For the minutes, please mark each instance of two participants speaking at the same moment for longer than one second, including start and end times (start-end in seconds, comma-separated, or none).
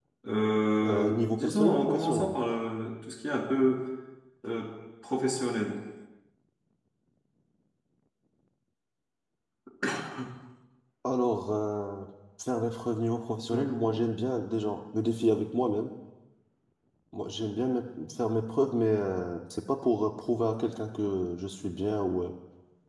0.8-2.3